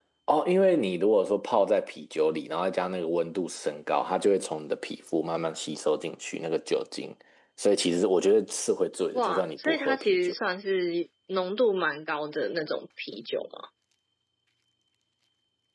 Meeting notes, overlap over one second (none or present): present